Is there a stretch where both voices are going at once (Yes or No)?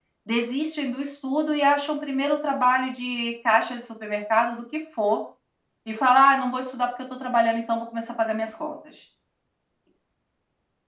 No